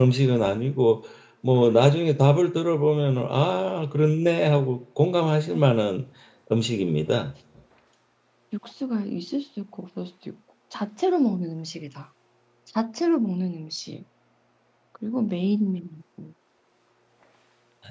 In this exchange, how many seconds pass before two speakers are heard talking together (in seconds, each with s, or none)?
none